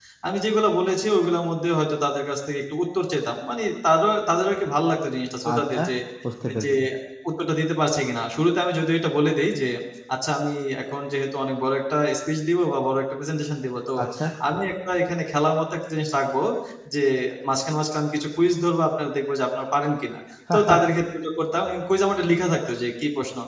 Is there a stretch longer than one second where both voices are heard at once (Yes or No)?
No